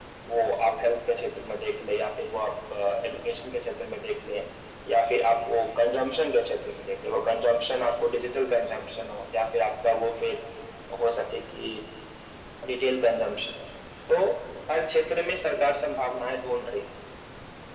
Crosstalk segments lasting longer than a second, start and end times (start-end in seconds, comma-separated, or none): none